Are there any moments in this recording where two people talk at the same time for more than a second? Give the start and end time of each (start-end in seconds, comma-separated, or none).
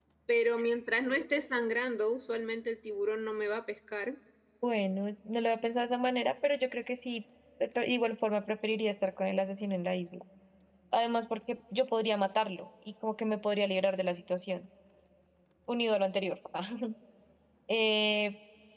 none